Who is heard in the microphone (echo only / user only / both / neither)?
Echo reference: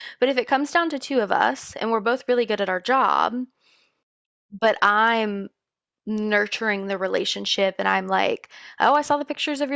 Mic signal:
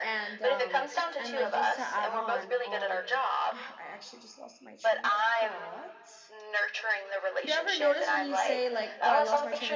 both